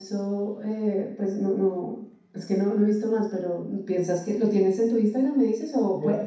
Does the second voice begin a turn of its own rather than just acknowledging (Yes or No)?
Yes